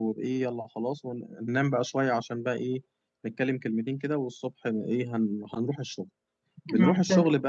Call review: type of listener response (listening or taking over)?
listening